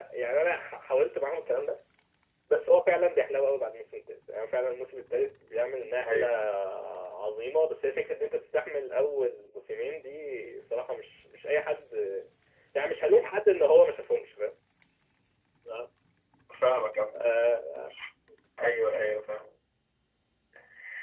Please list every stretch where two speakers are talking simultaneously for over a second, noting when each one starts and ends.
none

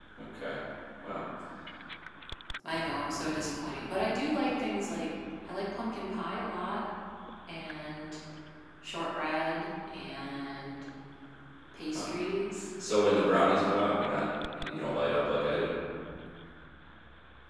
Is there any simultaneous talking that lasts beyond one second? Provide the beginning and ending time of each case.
none

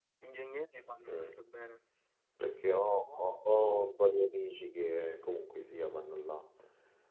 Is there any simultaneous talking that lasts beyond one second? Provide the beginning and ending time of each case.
none

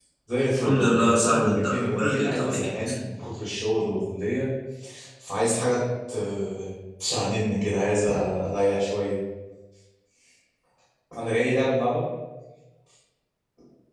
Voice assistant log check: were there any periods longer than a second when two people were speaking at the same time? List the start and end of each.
0.6-2.5

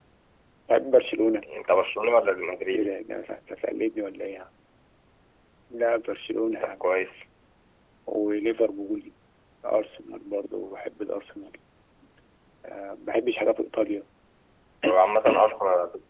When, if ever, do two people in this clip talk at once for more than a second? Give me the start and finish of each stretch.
none

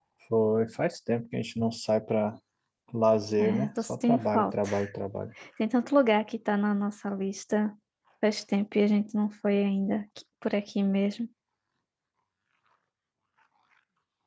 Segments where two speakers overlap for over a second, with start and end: 3.4-4.7

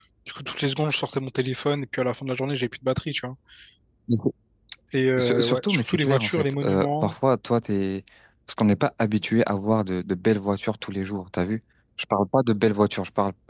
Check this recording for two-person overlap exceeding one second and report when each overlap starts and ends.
5.2-7.1

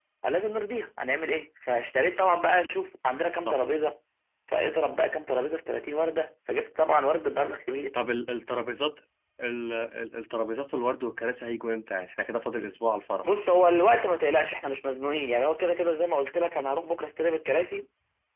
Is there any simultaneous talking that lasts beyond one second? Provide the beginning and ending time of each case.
none

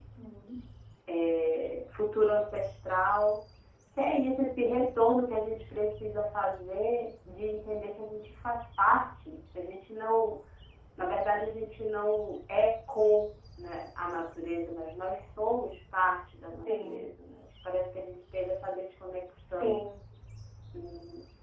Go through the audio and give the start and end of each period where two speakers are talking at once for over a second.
none

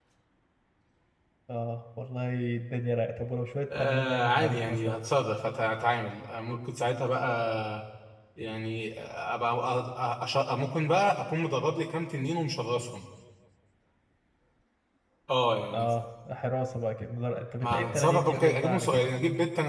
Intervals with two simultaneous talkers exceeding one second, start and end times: 3.8-5.0, 17.6-19.1

